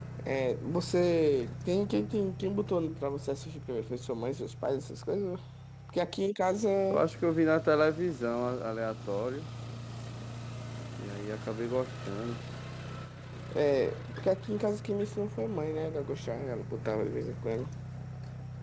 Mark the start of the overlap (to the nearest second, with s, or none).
none